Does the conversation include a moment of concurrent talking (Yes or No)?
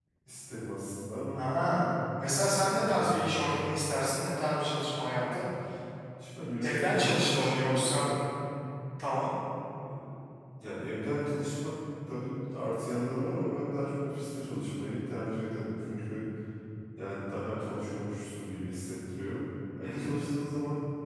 Yes